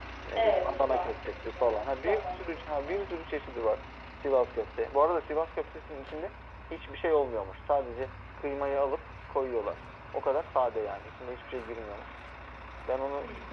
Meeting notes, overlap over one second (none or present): present